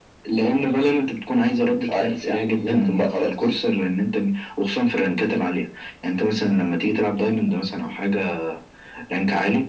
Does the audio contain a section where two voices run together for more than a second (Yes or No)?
Yes